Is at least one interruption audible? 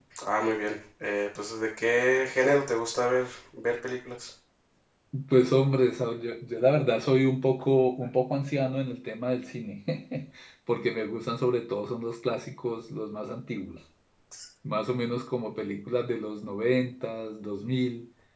No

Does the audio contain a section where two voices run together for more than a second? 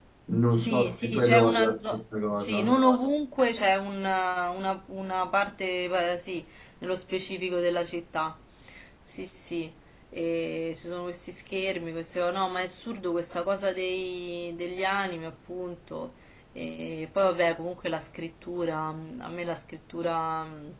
Yes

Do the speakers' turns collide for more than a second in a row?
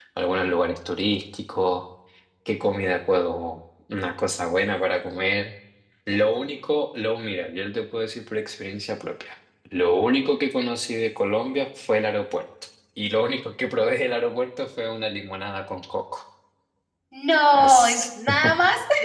No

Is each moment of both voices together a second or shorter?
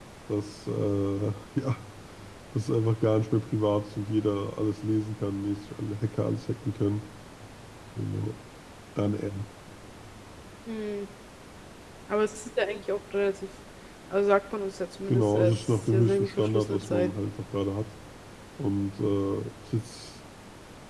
No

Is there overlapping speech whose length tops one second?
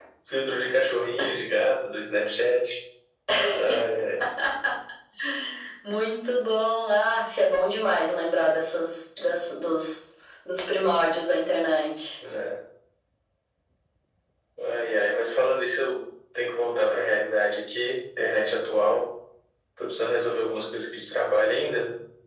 No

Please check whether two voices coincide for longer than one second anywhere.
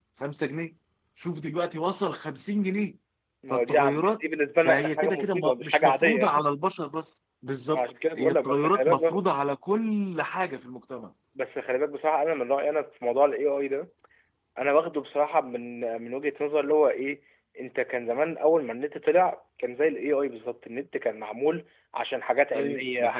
Yes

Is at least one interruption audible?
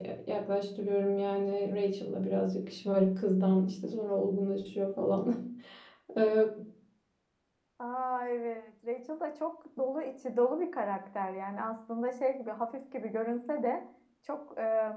No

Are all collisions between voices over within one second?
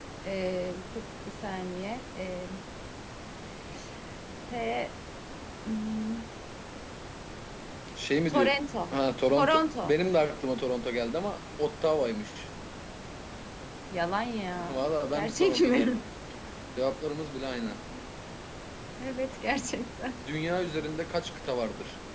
No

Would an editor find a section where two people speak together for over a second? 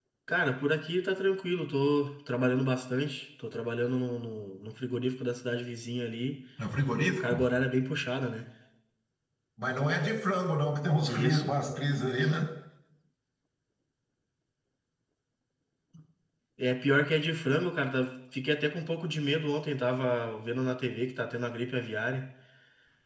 No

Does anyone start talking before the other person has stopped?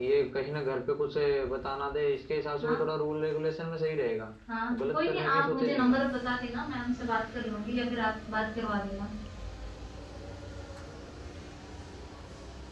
Yes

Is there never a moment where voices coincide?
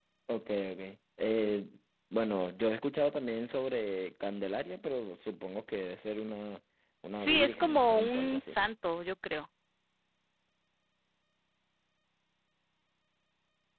No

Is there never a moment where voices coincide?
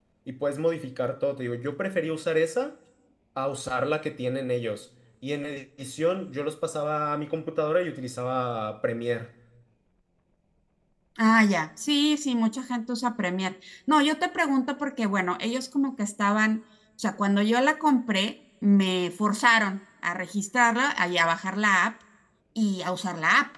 Yes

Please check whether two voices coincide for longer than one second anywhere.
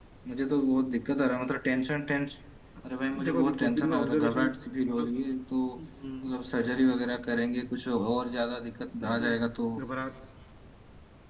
Yes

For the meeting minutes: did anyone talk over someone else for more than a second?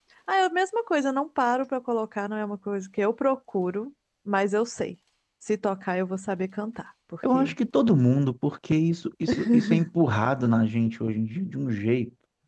No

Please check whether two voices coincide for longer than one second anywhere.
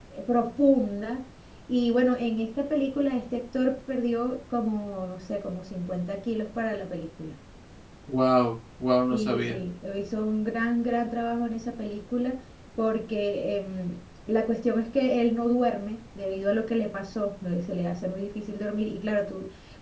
No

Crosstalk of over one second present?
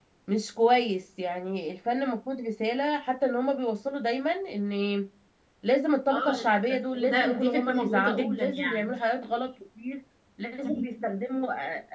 Yes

